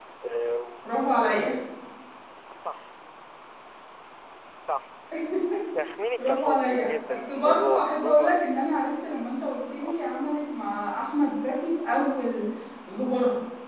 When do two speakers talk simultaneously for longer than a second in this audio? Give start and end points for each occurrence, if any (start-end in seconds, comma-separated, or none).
6.2-8.5